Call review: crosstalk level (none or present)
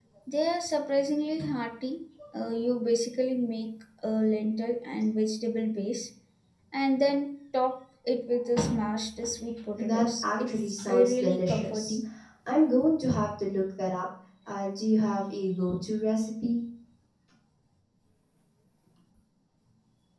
present